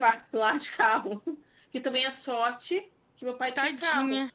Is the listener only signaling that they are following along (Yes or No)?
Yes